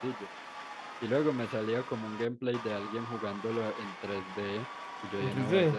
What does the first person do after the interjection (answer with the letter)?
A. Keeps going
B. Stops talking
A